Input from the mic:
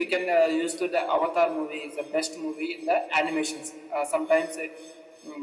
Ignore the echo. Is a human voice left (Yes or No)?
No